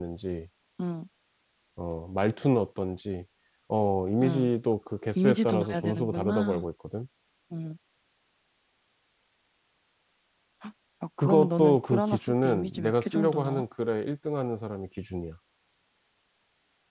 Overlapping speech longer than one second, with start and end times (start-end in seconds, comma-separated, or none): 5.2-6.7, 11.2-13.6